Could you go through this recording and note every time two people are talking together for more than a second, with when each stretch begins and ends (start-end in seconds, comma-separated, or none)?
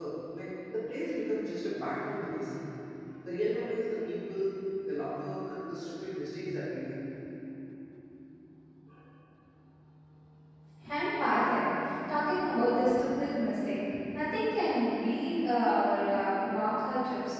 none